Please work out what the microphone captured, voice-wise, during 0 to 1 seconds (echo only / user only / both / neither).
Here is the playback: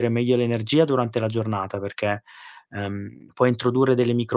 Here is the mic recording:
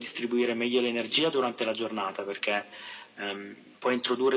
echo only